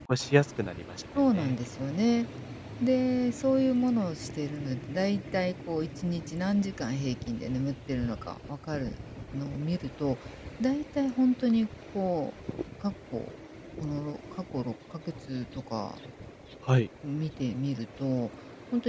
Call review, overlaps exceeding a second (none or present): none